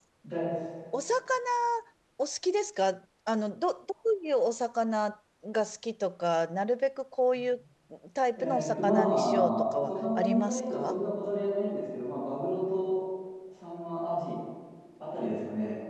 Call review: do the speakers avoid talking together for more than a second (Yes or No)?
No